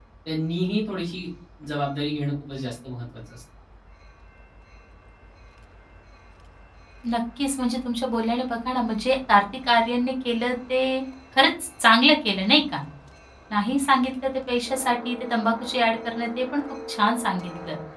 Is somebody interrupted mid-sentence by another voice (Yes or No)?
No